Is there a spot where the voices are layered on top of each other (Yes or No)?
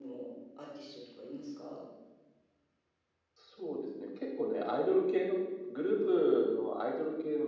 No